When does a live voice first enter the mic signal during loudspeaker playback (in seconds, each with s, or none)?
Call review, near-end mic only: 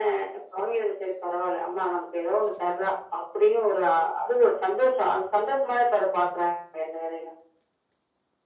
none